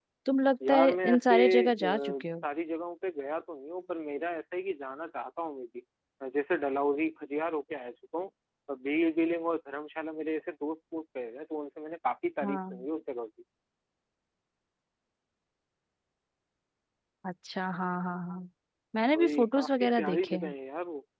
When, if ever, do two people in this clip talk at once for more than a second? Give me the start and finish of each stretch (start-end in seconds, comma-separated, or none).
0.7-2.2, 19.2-20.5